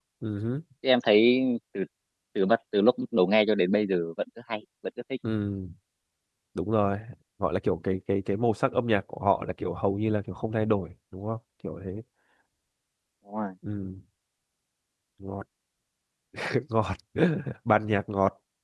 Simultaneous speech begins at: none

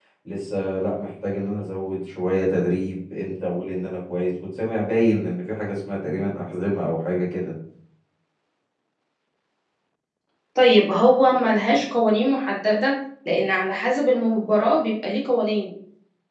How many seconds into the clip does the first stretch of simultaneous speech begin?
none

